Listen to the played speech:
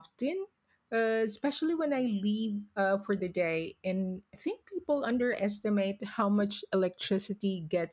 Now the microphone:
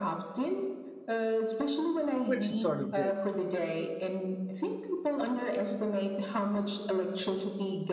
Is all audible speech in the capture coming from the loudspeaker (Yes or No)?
No